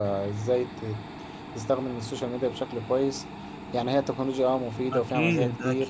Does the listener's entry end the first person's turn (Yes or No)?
Yes